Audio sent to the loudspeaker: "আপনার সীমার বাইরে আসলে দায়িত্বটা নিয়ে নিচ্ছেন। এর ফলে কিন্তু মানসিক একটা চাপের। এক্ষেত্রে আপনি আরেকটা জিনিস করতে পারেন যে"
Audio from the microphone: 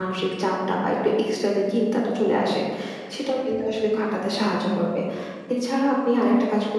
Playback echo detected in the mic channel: No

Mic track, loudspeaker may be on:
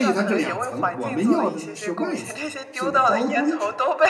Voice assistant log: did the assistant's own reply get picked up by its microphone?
Yes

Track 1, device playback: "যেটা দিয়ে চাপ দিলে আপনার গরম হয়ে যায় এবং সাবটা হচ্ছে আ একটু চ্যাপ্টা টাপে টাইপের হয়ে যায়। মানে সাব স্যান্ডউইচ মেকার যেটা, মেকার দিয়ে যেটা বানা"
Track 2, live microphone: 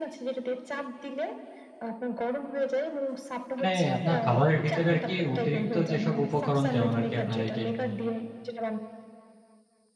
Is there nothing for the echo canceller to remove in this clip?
No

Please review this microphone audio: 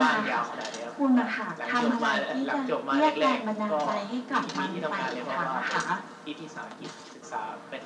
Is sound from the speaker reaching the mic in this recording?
Yes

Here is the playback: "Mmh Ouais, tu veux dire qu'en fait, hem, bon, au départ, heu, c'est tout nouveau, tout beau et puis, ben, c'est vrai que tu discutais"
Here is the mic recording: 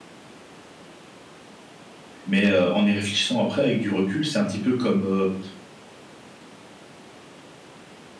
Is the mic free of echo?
Yes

